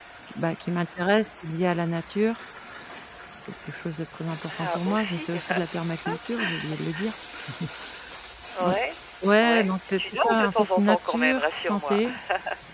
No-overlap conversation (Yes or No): No